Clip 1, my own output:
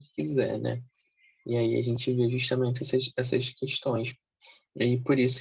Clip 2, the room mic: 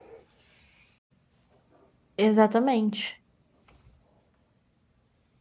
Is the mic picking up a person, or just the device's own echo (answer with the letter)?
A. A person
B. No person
A